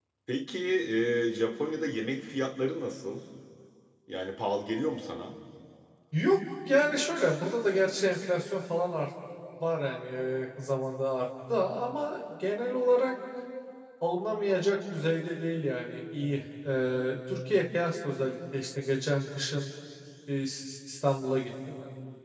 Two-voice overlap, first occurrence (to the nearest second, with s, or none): none